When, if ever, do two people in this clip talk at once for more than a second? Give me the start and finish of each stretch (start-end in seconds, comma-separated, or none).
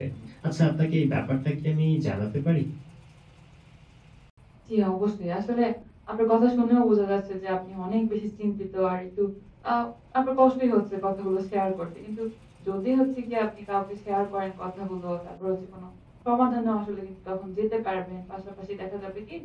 none